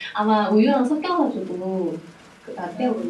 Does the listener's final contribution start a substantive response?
No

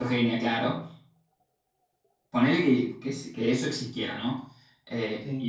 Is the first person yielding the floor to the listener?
No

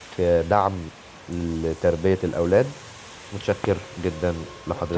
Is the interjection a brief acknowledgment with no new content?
No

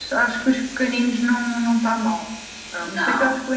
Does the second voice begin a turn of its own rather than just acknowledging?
No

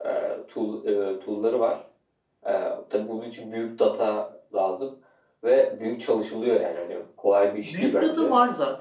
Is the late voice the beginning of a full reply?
Yes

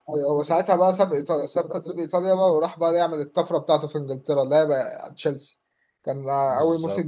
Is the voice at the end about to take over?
No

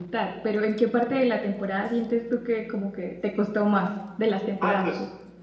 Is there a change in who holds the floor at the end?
Yes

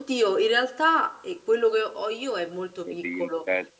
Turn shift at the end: Yes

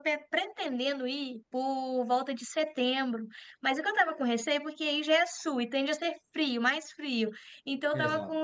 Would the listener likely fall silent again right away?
Yes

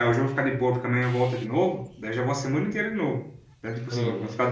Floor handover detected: Yes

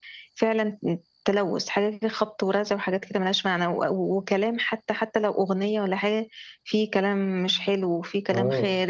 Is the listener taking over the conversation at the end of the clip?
Yes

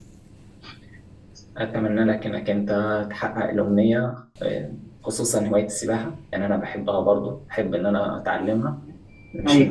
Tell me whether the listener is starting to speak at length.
No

